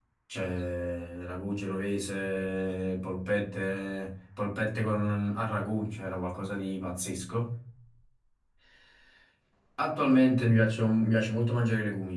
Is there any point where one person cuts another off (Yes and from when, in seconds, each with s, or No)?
No